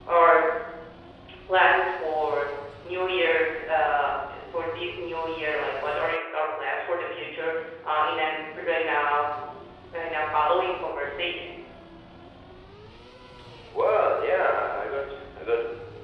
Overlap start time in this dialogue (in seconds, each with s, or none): none